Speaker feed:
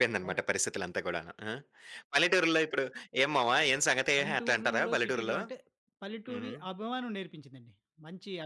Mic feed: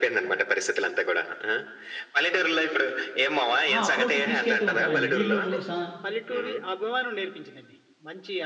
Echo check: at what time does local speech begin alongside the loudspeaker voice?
3.7 s

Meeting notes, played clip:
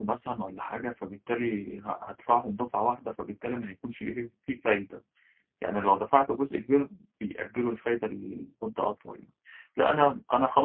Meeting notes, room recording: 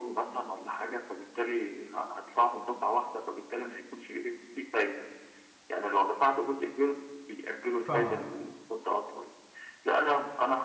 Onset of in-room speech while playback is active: 7.9 s

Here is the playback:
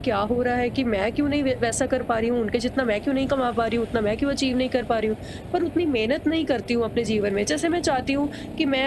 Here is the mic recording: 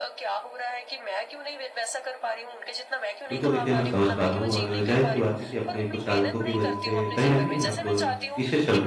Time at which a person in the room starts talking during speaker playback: 3.3 s

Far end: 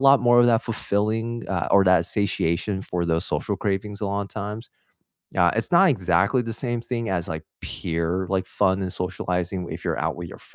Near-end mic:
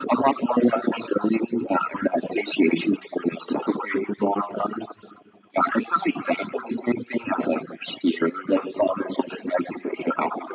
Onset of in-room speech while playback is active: none

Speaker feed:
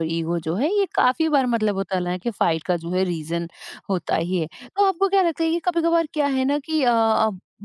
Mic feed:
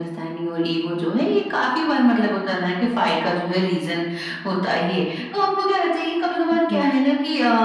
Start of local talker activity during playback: 6.5 s

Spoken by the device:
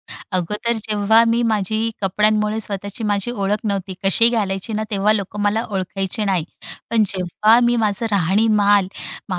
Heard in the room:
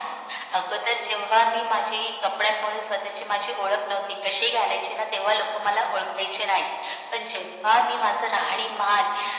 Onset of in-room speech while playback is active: none

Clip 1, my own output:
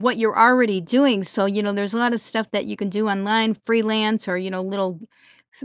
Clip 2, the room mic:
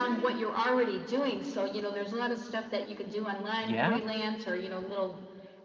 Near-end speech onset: 3.6 s

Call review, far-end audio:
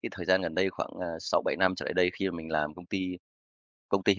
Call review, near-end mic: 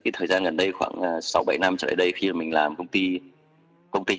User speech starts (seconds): none

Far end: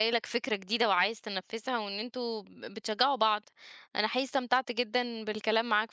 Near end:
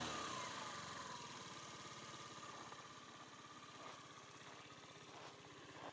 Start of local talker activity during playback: none

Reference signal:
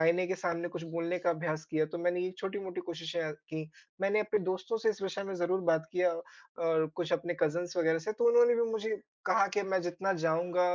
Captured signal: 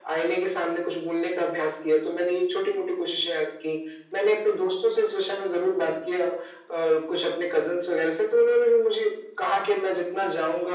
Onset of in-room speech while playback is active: none

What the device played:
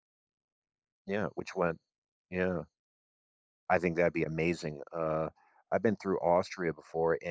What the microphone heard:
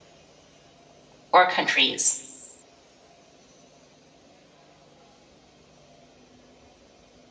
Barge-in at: 1.3 s

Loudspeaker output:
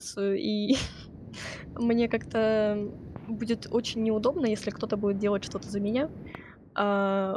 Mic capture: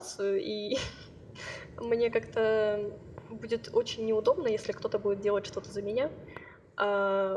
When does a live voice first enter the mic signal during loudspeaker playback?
none

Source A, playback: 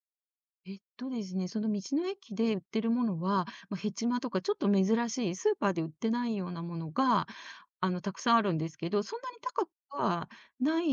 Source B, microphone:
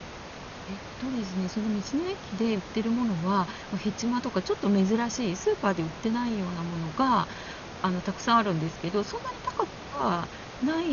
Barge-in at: none

